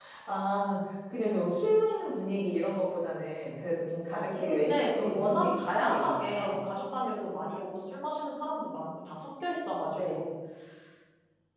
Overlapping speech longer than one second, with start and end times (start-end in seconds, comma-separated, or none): 4.4-6.6